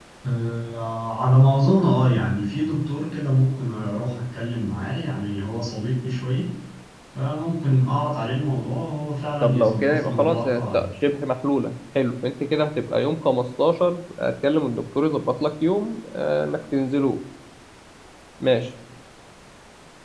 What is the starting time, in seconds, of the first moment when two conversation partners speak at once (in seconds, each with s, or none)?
9.4 s